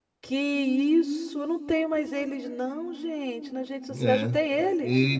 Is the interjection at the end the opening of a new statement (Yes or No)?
Yes